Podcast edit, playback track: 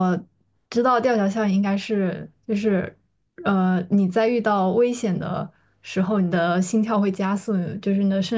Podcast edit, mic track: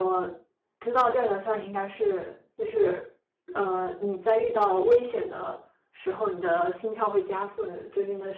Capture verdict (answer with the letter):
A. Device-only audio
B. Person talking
A